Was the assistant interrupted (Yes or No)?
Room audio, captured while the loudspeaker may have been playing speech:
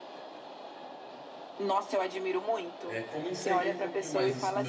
Yes